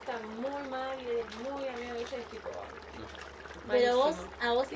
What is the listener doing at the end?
taking over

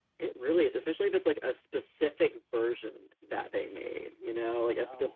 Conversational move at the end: listening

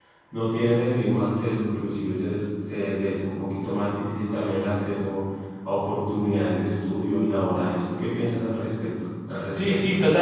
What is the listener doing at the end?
taking over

